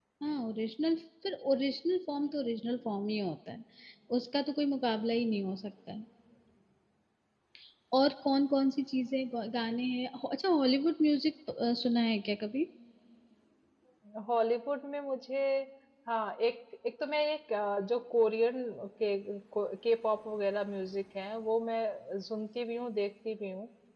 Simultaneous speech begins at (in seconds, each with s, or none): none